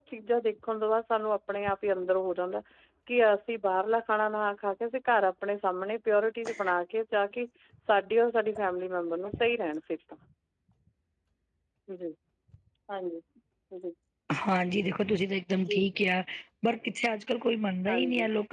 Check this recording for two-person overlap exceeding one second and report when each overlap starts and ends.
none

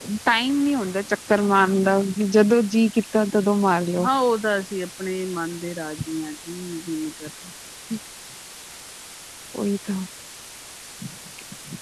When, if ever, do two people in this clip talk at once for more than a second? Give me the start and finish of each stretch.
none

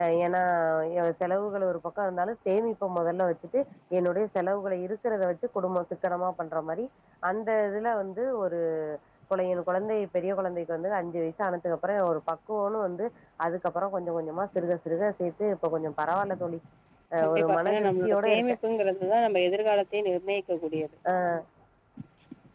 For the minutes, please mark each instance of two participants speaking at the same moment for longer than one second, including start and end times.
17.2-18.4

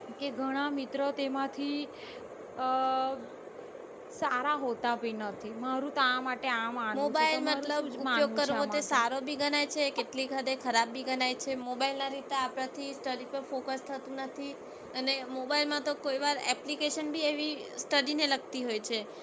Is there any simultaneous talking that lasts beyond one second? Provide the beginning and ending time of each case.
7.0-9.0

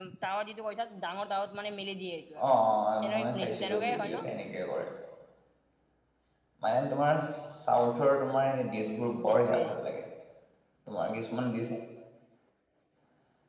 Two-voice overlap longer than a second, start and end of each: 3.0-4.2

